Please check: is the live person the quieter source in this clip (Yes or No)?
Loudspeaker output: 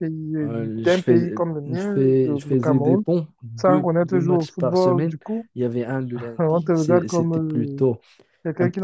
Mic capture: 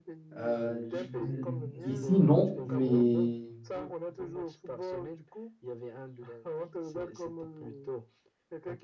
No